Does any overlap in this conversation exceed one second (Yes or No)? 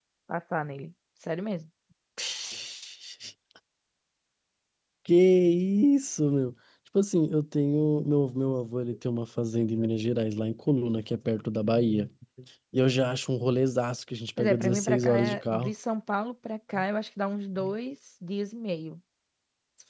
Yes